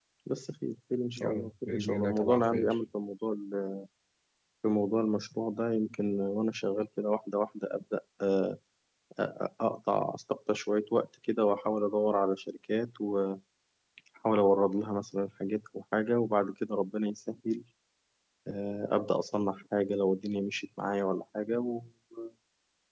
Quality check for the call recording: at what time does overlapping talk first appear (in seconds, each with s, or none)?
1.2 s